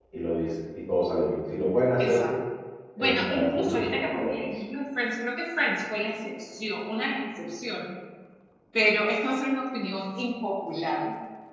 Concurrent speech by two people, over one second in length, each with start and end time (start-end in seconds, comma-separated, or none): 3.0-4.4